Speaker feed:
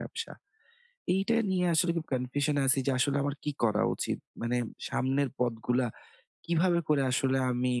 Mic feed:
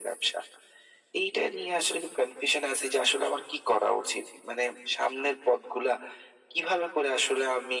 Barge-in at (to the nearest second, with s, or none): none